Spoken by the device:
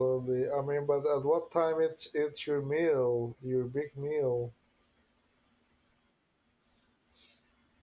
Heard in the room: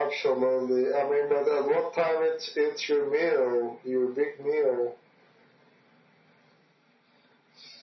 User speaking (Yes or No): No